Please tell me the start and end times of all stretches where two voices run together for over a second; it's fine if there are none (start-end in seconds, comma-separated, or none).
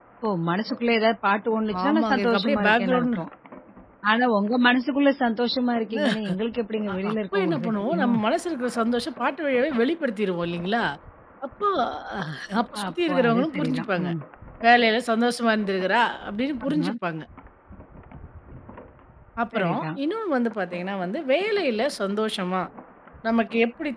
1.8-3.2, 6.9-8.2, 12.9-14.1